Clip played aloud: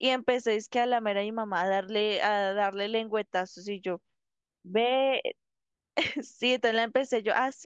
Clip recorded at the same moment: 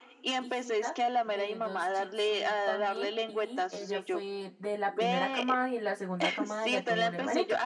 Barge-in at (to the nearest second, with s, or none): 0 s